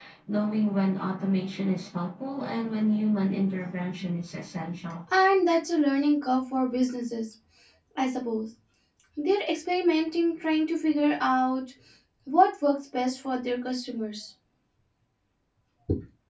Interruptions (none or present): none